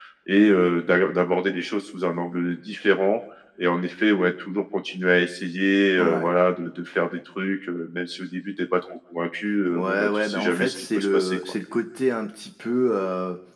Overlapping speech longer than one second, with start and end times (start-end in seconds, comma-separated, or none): 9.8-11.5